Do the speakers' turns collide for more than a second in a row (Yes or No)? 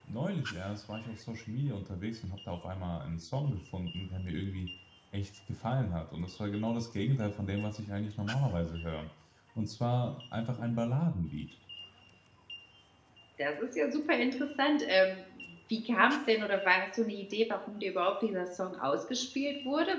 No